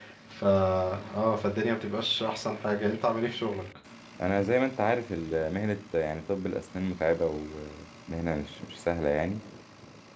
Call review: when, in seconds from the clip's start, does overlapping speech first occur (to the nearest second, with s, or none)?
none